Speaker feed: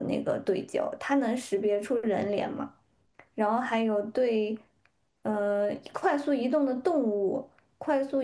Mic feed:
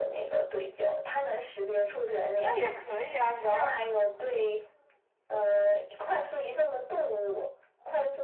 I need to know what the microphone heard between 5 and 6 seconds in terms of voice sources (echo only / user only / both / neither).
echo only